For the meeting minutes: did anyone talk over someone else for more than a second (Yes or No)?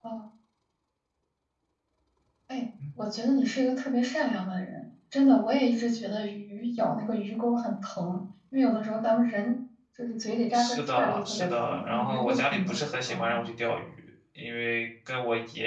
Yes